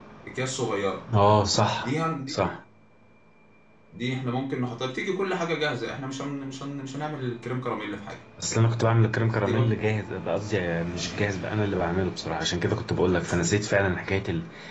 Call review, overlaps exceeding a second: none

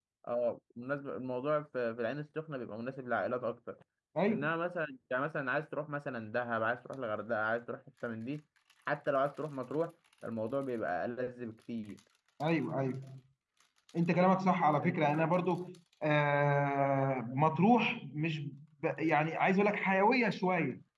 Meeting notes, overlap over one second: none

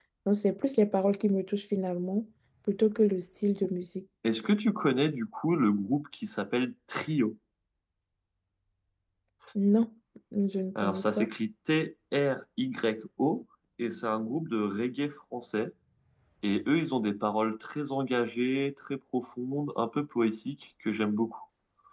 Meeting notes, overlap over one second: none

